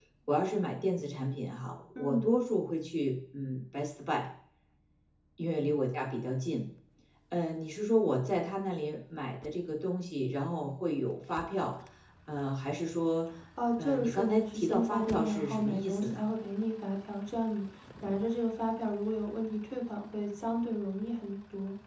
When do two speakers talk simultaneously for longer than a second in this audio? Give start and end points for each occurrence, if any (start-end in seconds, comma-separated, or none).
13.8-16.2